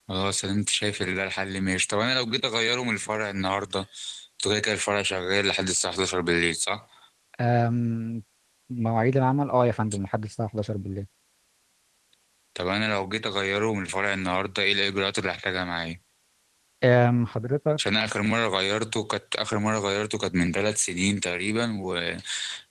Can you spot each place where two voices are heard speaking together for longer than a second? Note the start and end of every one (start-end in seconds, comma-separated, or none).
none